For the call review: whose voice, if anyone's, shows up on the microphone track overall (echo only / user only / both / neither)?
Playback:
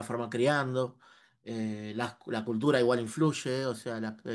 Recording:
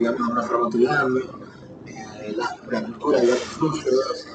both